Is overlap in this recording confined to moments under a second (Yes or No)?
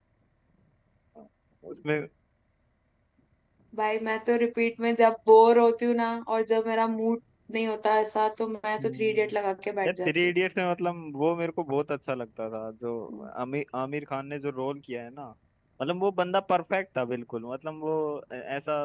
Yes